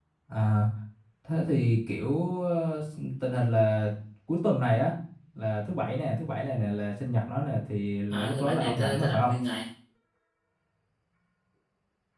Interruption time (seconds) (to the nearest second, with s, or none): 8 s